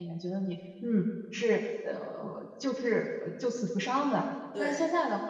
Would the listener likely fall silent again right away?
Yes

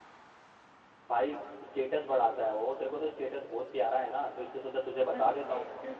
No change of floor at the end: No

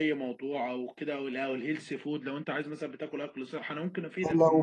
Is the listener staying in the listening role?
No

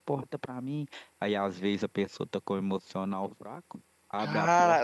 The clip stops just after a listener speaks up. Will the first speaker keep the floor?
No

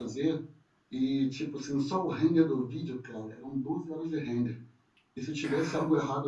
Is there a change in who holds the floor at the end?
No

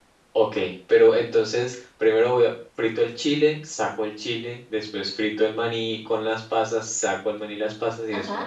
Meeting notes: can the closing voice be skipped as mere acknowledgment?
No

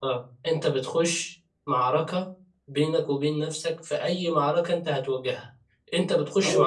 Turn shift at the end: No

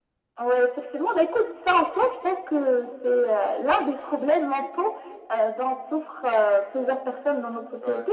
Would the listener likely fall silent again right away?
Yes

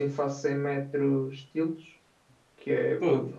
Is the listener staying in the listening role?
Yes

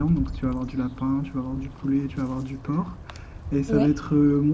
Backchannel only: Yes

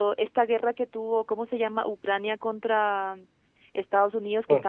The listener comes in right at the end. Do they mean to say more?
No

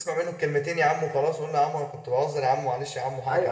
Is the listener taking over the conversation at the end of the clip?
Yes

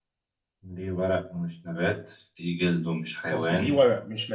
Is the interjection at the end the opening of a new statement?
Yes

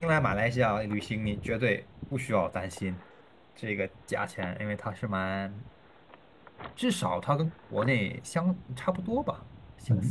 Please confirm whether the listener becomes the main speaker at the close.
Yes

